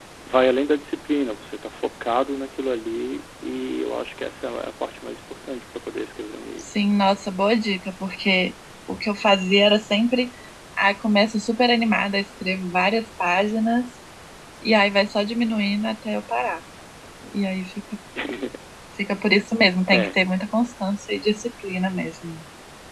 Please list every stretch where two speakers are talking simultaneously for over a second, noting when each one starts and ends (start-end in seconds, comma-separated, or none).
none